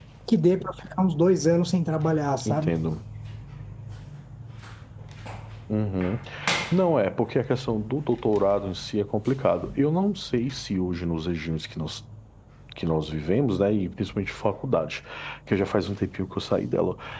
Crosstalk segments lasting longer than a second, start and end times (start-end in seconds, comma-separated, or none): none